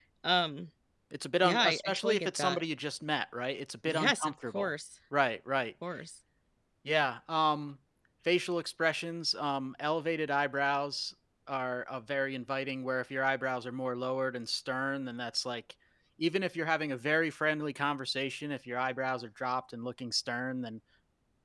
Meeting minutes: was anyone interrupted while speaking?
Yes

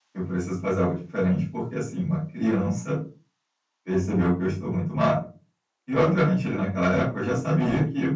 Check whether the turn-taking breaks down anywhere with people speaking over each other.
No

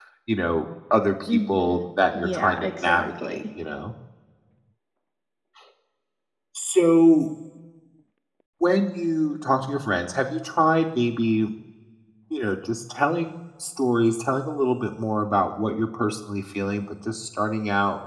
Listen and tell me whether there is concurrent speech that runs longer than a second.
Yes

